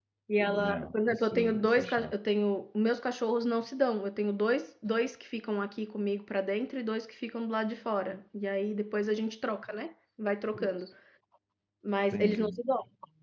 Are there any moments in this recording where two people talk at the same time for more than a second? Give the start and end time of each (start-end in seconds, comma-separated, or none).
0.6-2.1